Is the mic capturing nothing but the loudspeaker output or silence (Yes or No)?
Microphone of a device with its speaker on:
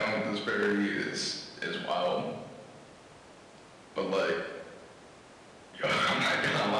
Yes